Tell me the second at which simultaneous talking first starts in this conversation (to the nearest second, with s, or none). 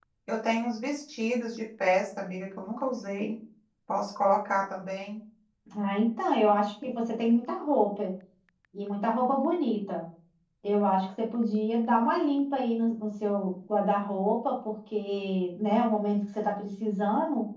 none